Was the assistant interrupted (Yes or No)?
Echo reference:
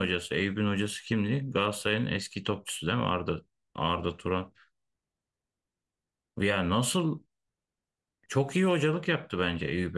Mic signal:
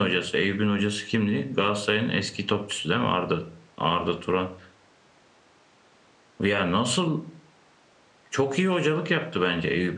No